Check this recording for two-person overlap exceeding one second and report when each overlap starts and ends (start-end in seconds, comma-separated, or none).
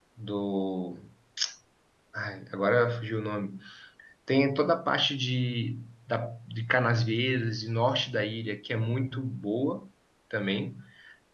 none